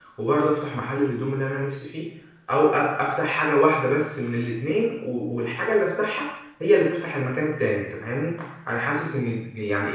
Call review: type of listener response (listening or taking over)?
listening